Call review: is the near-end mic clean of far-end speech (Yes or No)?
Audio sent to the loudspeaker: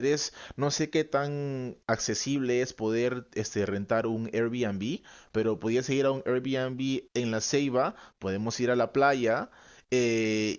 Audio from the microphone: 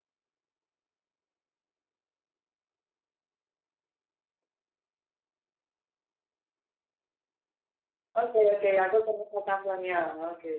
Yes